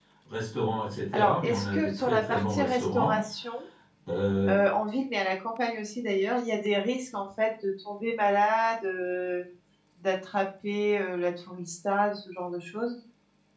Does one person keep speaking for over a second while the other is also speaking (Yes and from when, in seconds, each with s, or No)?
Yes, from 1.1 s